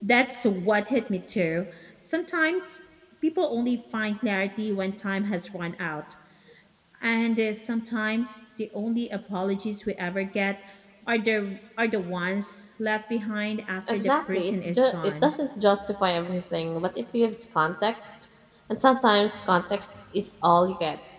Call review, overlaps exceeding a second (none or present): present